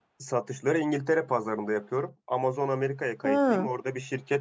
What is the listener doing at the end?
listening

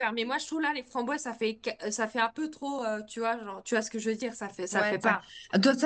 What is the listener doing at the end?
taking over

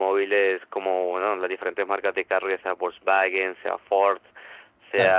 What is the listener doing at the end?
listening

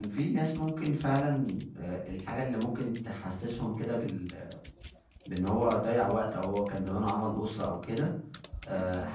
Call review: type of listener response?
listening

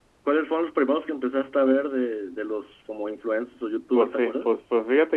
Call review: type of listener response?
taking over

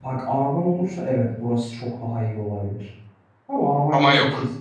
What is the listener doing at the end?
listening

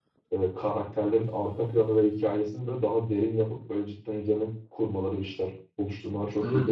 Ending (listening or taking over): taking over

